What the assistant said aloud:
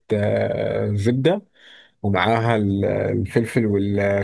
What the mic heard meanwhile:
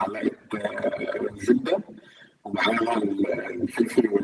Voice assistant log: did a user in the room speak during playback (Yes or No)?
No